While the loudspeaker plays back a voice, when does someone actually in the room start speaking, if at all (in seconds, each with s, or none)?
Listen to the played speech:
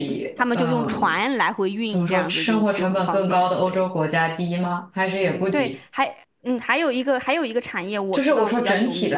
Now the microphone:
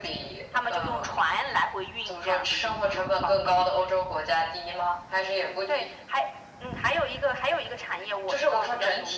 none